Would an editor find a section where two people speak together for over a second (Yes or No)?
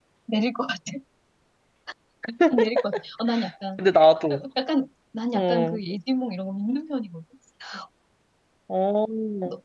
No